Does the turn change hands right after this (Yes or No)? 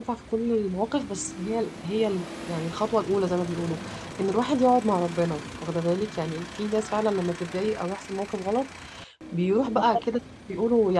No